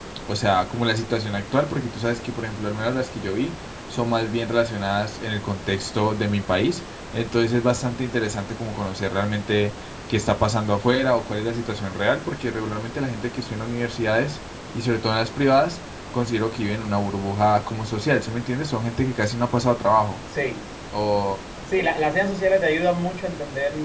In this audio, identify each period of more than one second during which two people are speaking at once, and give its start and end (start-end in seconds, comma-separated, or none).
none